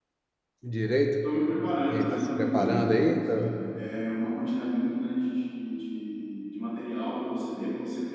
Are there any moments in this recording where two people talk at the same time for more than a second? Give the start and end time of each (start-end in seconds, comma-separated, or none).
1.9-3.5